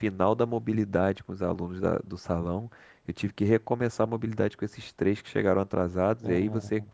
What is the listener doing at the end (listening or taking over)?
listening